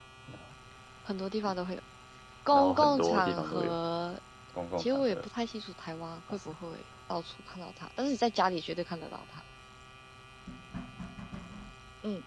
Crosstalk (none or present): present